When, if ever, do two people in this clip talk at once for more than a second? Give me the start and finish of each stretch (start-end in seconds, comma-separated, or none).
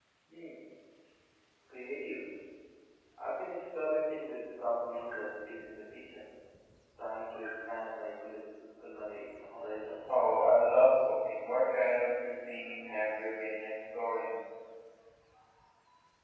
none